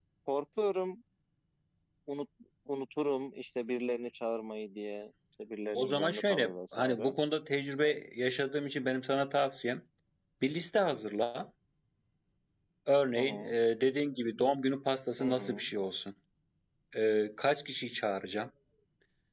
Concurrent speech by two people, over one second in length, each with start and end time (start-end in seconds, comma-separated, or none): 5.7-7.2